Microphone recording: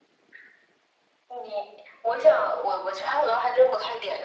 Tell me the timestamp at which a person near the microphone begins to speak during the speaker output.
none

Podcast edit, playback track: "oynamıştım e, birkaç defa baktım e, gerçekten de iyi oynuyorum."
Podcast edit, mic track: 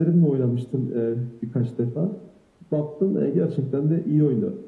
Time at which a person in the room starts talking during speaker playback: none

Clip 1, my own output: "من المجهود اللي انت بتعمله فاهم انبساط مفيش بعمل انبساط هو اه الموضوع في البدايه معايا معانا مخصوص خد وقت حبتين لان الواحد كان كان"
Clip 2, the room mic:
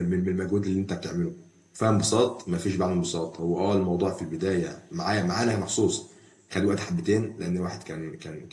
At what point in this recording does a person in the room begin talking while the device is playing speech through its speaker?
none

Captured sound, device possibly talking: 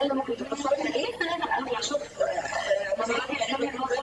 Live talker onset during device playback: none

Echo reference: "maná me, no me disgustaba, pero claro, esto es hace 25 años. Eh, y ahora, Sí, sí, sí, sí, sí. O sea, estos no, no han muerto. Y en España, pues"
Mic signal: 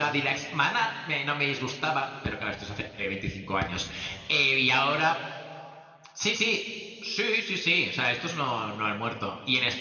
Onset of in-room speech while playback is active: none

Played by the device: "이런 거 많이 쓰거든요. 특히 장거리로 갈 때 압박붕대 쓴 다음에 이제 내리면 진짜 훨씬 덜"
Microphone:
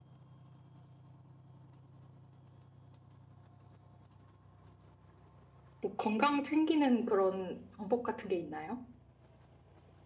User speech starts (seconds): 5.8 s

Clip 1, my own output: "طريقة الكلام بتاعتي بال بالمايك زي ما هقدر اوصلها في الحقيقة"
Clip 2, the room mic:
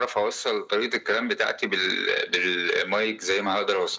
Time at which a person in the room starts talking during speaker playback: none

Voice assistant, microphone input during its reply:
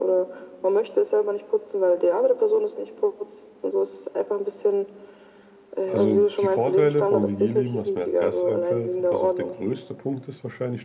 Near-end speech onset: 5.8 s

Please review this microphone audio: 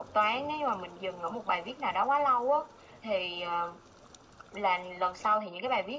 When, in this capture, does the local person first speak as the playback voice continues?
none

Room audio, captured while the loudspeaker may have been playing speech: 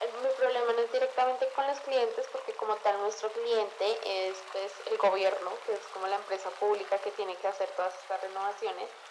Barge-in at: none

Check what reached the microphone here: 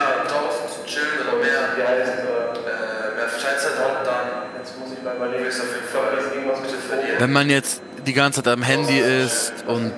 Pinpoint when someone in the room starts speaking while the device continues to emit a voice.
7.2 s

